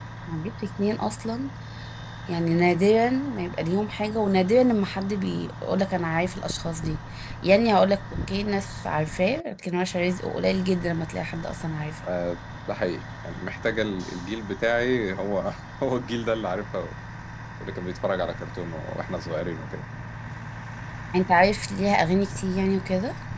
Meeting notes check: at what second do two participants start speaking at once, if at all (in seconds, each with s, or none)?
none